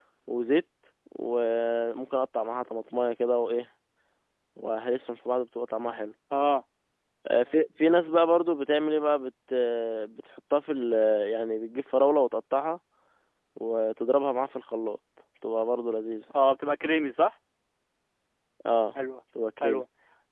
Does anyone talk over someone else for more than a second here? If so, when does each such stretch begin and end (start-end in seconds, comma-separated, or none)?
none